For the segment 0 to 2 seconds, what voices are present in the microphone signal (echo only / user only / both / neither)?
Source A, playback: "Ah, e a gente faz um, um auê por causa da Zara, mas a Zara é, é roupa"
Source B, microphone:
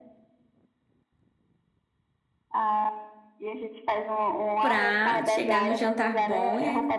neither